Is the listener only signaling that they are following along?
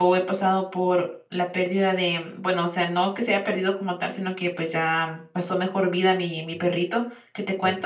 Yes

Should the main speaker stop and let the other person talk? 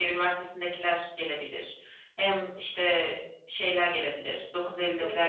No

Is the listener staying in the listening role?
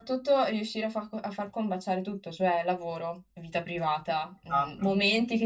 Yes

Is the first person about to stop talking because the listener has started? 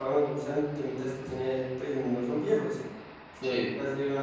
No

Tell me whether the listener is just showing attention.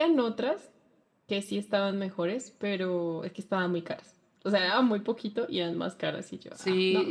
No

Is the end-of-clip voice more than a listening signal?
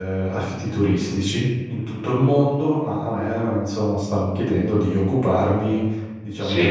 No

